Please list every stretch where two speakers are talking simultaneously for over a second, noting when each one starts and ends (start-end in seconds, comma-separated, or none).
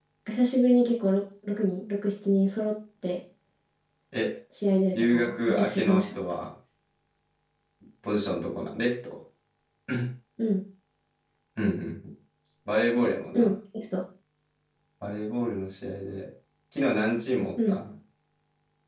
4.9-6.2